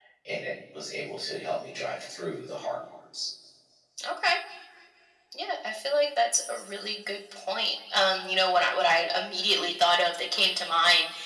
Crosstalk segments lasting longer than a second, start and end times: none

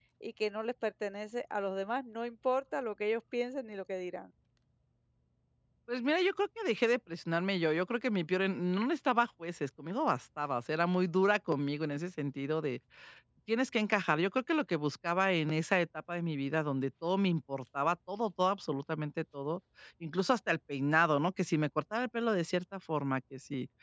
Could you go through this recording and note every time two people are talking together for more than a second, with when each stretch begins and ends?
none

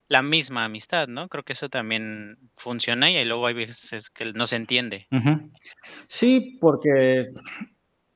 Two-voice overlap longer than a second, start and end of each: none

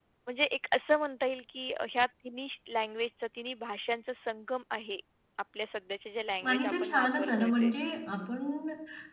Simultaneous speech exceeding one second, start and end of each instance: 6.5-7.7

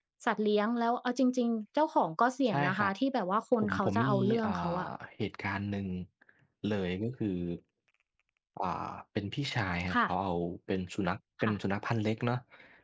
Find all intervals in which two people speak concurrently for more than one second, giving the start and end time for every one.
3.5-4.9

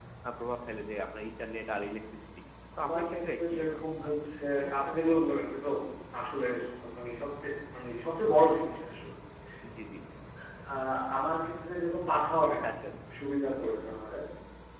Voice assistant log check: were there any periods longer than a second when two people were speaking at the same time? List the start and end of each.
2.8-4.9

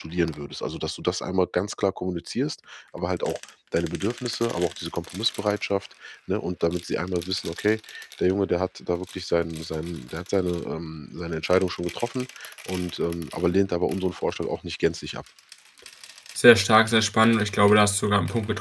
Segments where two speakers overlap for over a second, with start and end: none

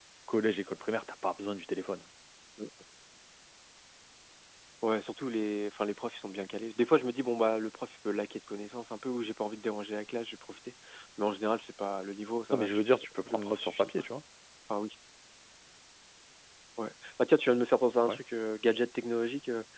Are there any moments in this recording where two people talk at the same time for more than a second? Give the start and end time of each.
12.5-13.9

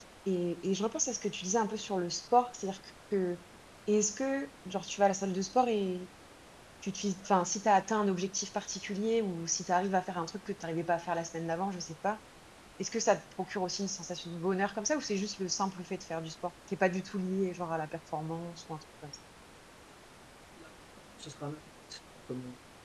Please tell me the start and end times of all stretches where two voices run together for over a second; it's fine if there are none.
none

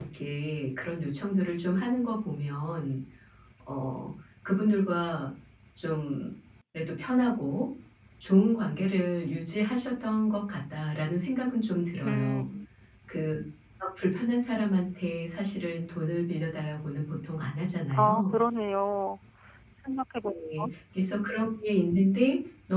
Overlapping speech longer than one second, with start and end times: none

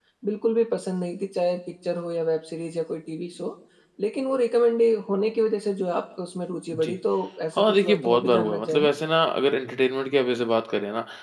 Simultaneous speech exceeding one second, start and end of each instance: 7.6-8.9

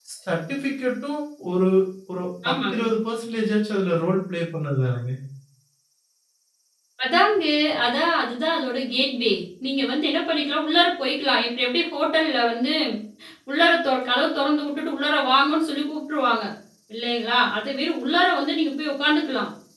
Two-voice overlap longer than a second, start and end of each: none

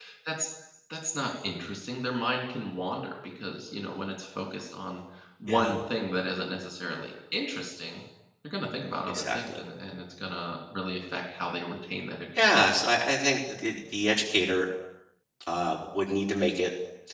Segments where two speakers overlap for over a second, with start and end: none

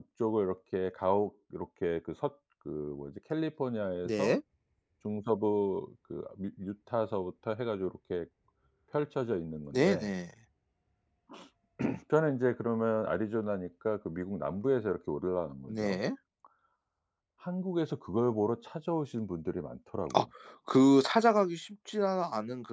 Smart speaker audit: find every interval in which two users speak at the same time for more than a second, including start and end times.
none

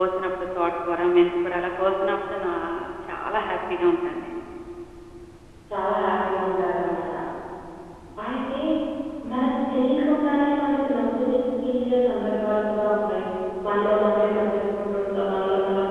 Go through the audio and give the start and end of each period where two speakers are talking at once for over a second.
none

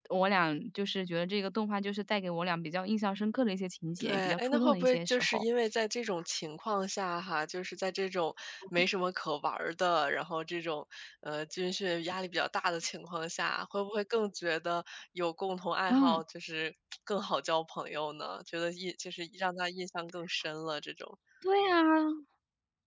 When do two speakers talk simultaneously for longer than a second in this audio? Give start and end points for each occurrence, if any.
4.0-5.4

